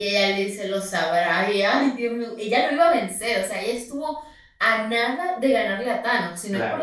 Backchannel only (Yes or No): No